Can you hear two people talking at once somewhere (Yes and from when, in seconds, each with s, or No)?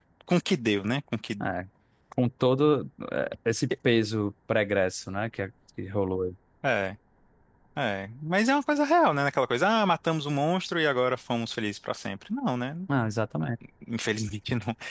No